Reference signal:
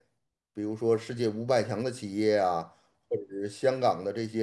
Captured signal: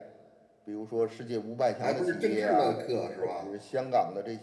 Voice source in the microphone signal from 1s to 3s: both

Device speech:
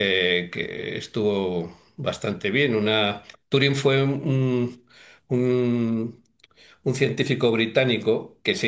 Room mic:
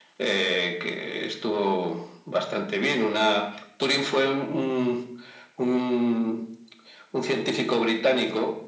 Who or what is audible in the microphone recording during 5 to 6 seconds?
echo only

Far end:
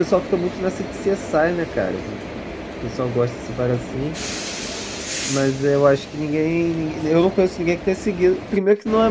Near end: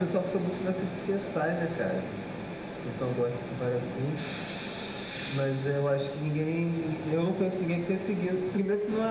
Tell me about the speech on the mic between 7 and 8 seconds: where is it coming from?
echo only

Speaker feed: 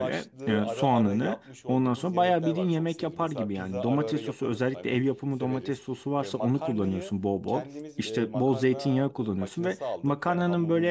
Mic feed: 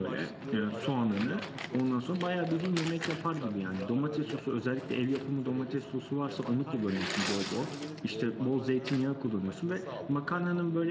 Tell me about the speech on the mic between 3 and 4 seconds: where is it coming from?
echo only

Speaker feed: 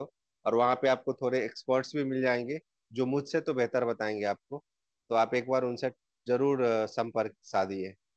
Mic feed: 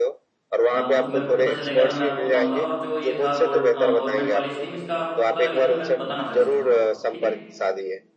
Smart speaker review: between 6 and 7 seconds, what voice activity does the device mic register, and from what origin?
both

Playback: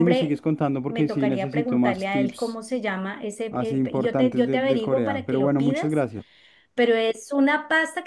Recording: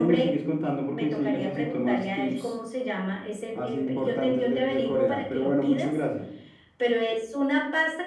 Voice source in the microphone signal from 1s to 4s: echo only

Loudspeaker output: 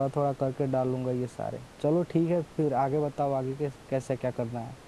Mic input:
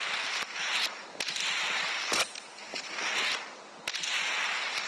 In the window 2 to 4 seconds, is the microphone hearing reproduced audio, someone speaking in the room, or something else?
neither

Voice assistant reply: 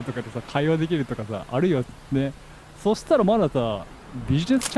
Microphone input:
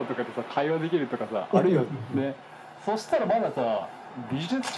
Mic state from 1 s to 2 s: both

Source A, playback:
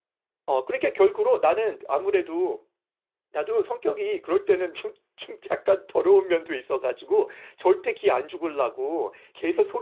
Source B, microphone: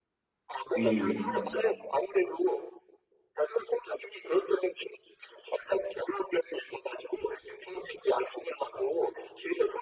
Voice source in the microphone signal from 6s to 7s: echo only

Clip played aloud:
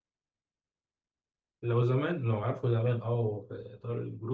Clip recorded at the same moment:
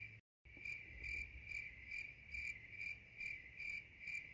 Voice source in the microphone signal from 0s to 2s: neither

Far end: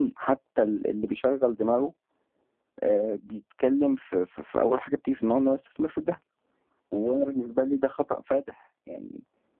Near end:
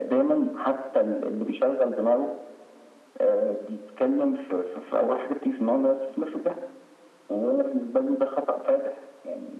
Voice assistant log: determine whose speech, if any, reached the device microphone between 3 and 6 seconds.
echo only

